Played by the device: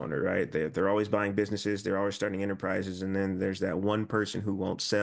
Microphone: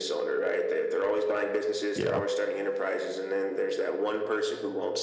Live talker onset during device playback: 1.9 s

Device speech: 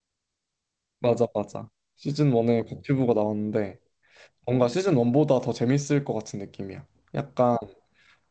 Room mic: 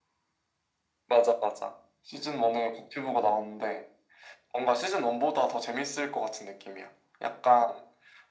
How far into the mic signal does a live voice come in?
none

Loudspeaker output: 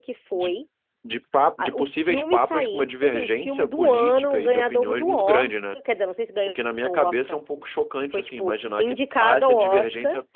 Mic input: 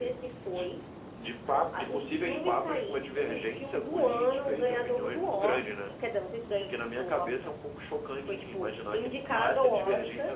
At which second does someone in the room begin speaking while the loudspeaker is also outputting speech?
none

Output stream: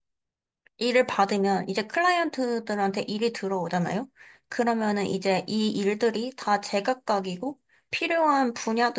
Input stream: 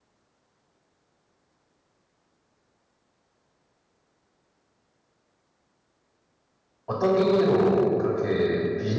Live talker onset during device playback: 6.8 s

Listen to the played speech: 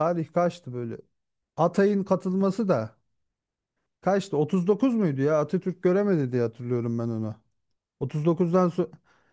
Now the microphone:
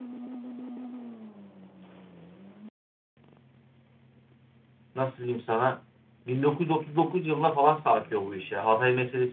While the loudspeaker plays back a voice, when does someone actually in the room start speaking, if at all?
4.9 s

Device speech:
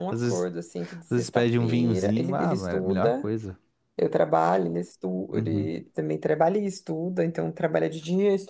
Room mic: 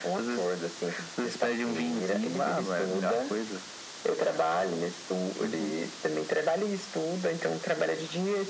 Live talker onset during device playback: none

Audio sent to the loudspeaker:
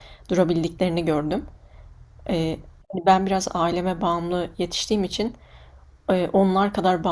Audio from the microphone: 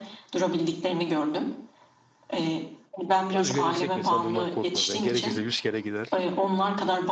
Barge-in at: 3.3 s

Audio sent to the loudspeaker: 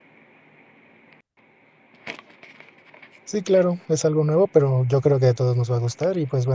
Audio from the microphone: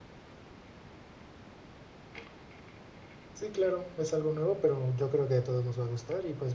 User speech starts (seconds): none

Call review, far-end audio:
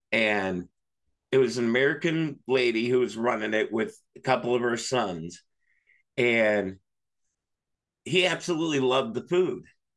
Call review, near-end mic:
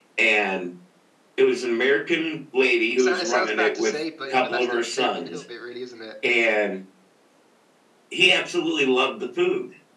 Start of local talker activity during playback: 3.0 s

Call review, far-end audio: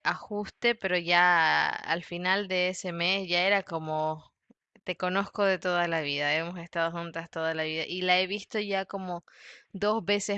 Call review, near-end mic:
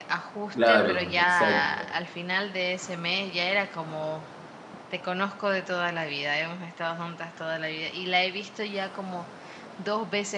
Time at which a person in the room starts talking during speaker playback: 0.4 s

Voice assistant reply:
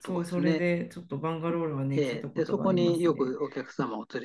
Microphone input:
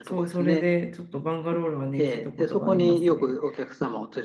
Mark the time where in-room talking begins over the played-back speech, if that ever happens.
none

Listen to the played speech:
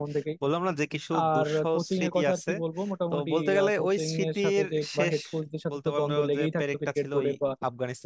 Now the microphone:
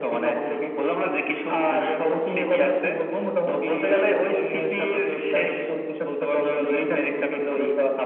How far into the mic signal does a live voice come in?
none

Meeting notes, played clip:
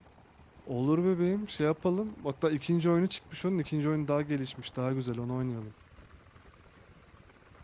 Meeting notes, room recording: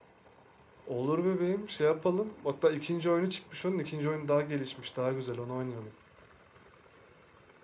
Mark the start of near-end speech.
none

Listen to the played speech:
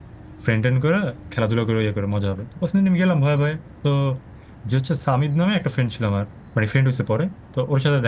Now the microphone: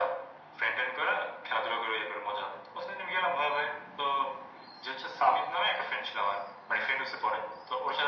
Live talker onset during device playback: none

